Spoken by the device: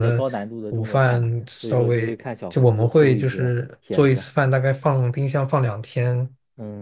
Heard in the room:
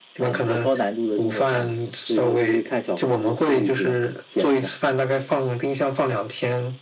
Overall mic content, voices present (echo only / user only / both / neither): echo only